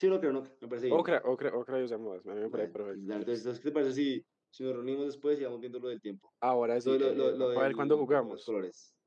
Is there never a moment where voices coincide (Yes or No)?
No